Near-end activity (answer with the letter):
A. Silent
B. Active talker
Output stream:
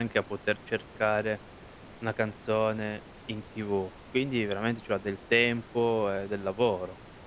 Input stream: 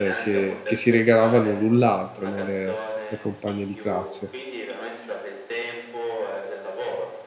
B